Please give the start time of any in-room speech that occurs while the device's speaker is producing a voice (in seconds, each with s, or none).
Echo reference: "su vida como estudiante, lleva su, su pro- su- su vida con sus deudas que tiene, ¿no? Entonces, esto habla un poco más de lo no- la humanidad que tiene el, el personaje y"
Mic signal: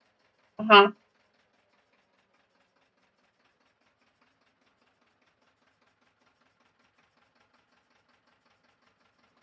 0.6 s